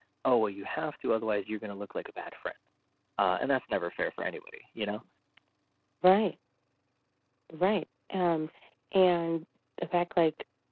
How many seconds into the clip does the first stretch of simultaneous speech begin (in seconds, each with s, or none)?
none